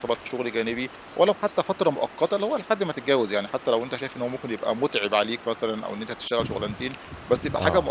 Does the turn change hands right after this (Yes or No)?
No